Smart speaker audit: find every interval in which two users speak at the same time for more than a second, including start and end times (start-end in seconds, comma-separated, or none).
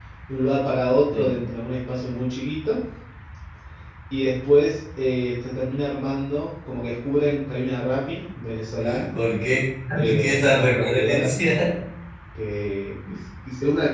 10.0-11.3